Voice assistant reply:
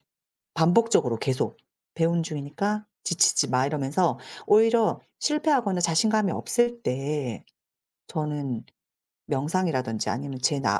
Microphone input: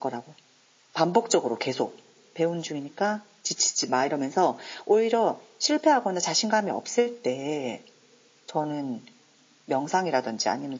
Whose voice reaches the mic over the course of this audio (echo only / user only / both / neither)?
echo only